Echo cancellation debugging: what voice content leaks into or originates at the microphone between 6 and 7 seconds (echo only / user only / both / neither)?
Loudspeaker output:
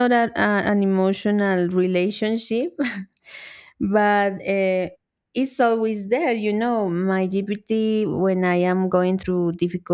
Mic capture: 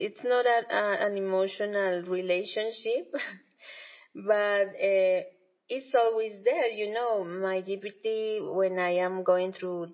echo only